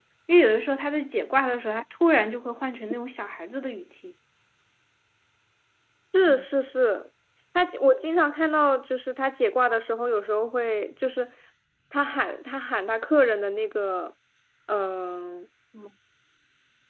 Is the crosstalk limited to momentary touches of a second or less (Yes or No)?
Yes